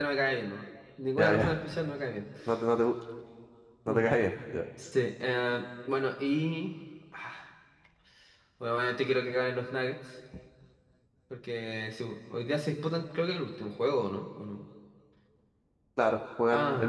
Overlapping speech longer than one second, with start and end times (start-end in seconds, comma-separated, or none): none